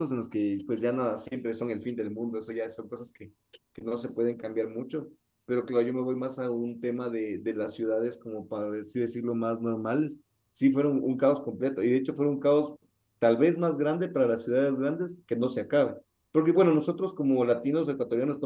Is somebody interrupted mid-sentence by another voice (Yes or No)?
No